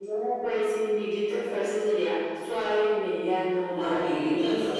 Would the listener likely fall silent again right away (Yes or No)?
No